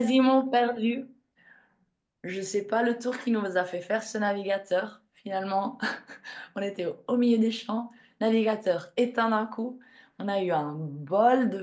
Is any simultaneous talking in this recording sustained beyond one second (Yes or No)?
No